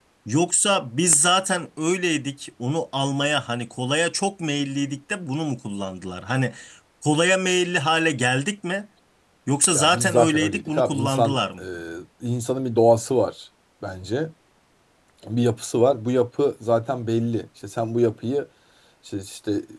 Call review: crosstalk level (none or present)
present